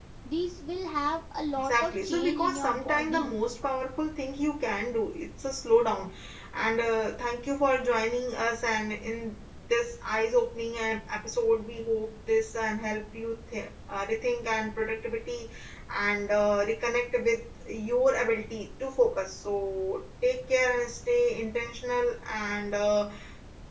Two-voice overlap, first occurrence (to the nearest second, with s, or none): 2 s